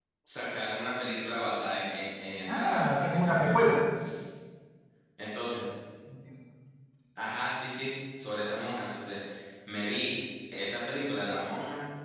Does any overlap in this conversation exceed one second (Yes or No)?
Yes